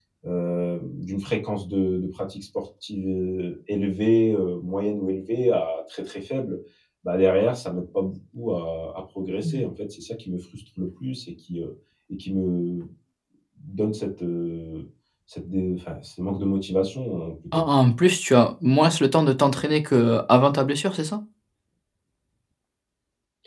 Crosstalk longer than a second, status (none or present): none